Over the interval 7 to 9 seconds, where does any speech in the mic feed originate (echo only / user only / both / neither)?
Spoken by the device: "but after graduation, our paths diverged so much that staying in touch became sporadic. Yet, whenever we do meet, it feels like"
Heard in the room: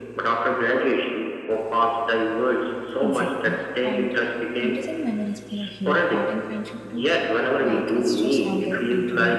both